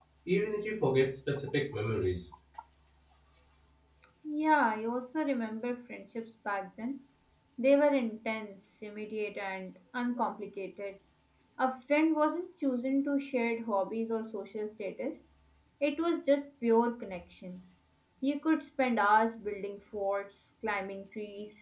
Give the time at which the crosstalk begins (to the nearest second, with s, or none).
none